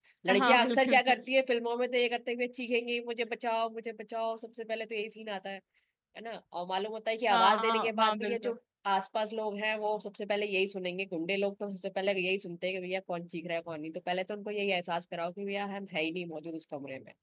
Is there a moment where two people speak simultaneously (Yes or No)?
Yes